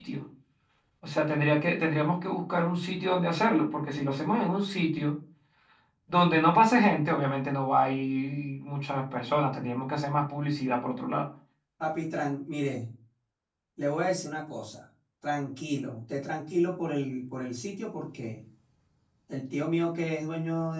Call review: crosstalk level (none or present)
none